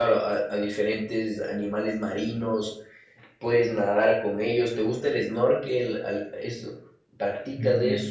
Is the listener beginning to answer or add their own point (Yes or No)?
Yes